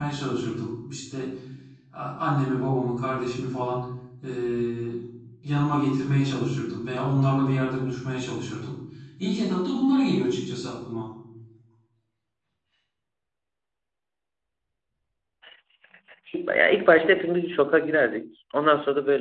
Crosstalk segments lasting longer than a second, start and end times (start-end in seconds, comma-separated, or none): none